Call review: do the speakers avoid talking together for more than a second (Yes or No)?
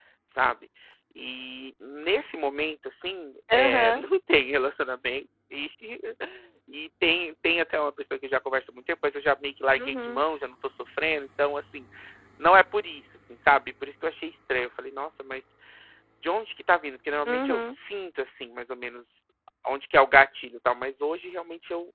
Yes